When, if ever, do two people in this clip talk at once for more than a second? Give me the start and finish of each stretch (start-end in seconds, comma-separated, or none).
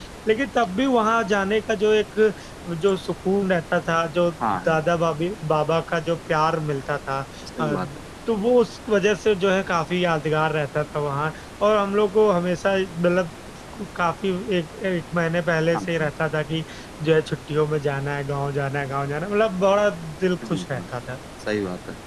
none